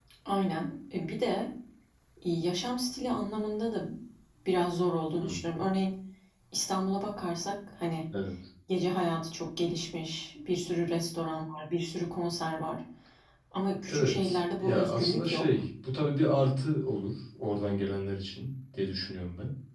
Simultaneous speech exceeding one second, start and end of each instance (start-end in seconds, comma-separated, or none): 13.9-15.5